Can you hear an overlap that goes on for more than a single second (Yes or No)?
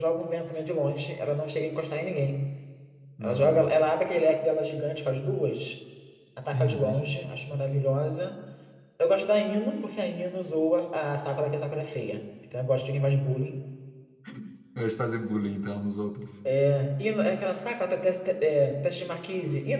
No